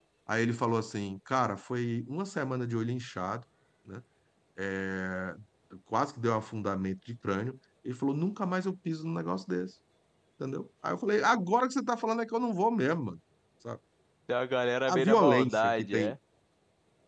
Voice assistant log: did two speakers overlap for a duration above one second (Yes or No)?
Yes